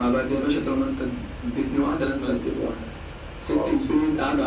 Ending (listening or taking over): listening